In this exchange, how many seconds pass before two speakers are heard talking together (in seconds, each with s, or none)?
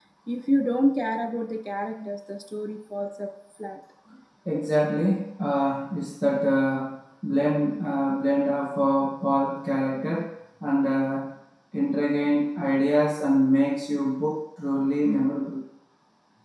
none